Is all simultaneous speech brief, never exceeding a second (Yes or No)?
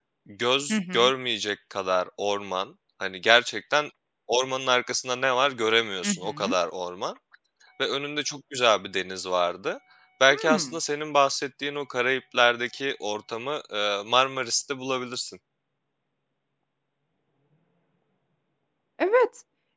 Yes